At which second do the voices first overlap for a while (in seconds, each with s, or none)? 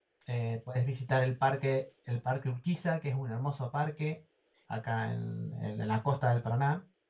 none